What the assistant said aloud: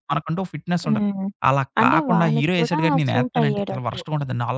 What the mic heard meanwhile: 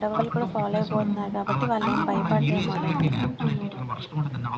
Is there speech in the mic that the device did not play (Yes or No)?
Yes